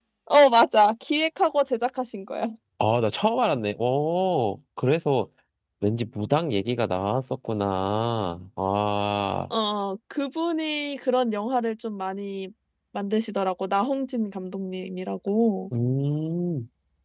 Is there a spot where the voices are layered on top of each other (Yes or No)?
No